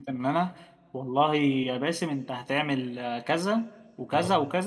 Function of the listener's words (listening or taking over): listening